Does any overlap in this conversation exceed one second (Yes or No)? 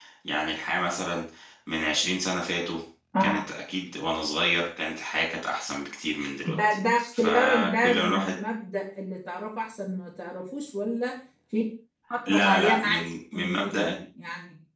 Yes